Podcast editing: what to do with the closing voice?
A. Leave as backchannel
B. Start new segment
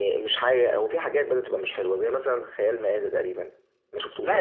B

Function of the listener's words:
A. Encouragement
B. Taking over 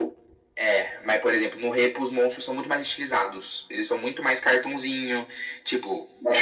A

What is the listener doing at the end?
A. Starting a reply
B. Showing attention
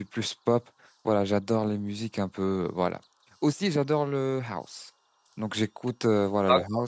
B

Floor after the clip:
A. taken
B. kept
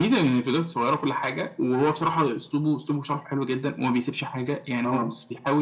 B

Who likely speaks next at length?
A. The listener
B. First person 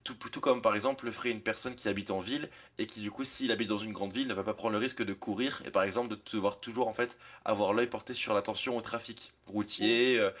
B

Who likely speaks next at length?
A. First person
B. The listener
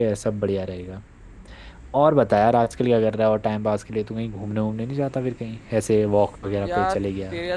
B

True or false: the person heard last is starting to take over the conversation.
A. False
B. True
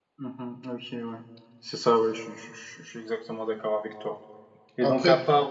A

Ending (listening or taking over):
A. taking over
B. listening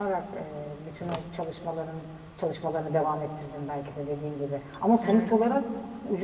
B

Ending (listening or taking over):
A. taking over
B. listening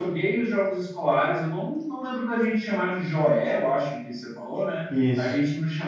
B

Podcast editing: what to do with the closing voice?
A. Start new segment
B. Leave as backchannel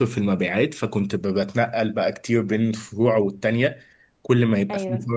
B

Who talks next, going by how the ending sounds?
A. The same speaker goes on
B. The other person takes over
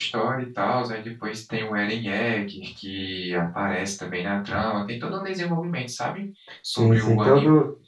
B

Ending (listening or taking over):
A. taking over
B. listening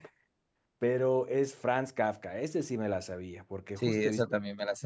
A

